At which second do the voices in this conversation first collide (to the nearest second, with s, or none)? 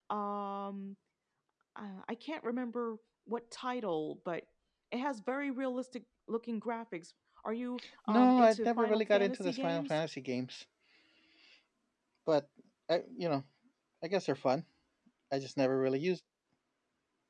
8 s